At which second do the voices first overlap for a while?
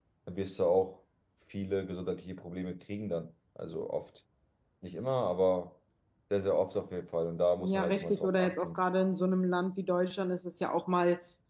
7.6 s

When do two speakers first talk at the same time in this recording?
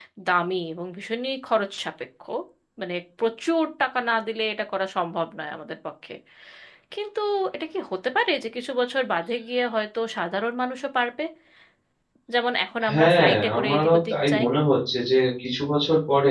12.9 s

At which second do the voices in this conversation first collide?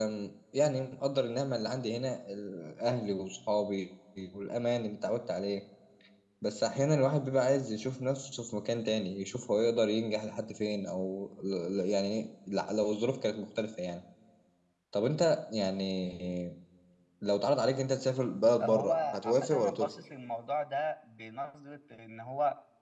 18.6 s

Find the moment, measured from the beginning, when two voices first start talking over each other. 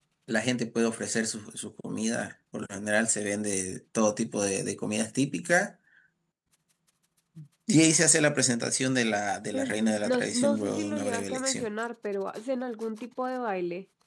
9.5 s

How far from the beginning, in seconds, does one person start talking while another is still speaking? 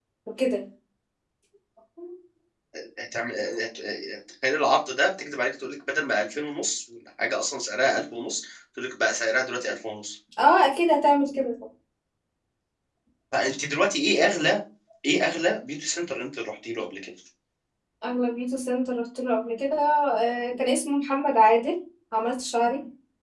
none

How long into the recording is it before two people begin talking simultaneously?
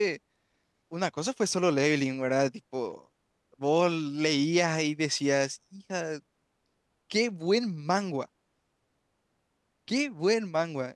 none

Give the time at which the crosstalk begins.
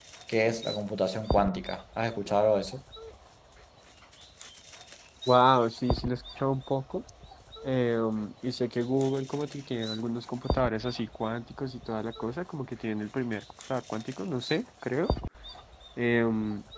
none

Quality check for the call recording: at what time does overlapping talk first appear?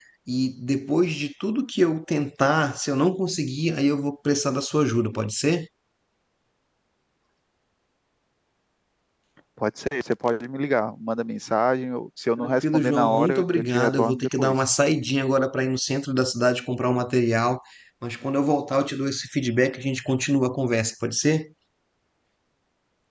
12.4 s

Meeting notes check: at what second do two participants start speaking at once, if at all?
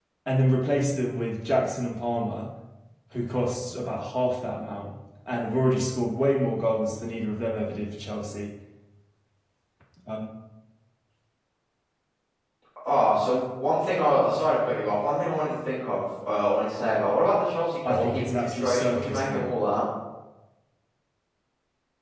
17.8 s

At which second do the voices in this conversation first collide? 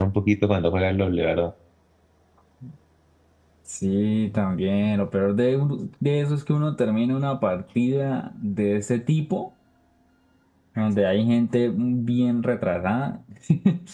none

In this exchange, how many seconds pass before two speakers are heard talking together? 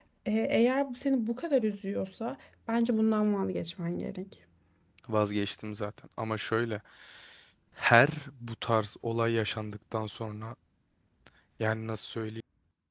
none

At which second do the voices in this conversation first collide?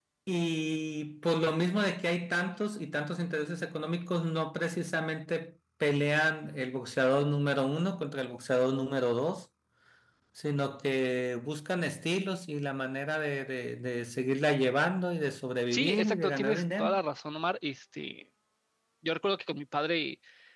15.7 s

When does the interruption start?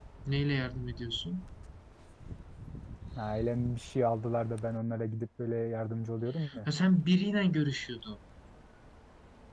none

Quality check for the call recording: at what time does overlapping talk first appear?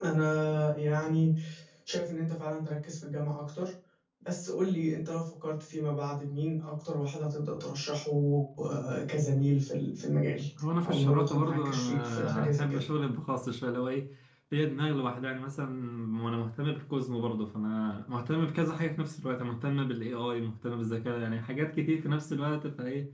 10.8 s

